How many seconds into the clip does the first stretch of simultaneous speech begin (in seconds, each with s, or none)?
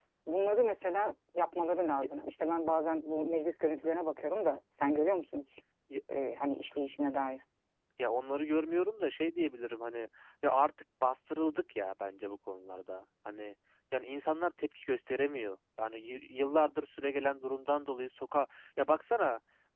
none